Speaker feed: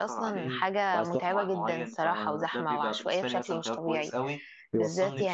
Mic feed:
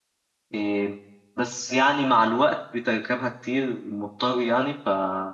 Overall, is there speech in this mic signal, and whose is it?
user only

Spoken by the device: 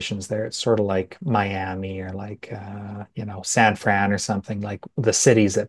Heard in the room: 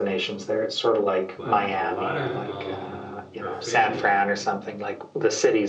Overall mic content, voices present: both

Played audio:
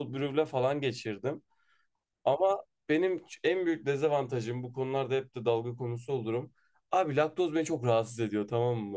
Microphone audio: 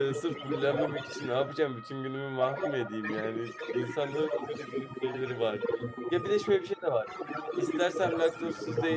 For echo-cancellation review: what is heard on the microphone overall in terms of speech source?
both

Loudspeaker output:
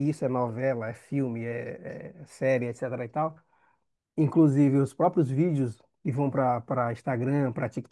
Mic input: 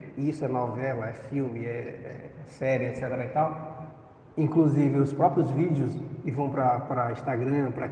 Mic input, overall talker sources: echo only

